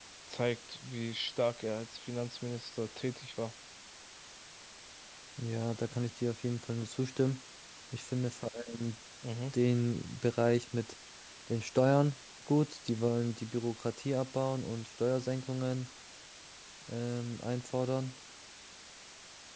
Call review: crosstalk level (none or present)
none